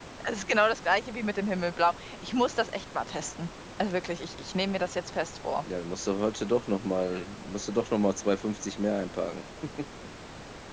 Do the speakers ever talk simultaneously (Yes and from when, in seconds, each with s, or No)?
No